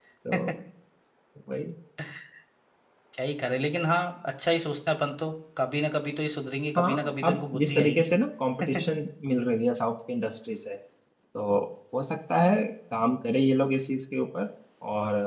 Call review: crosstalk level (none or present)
present